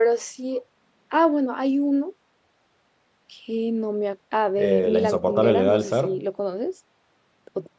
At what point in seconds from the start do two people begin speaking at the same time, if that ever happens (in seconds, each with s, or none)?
4.6 s